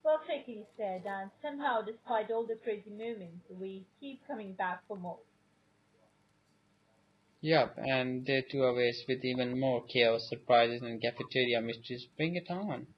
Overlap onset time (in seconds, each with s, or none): none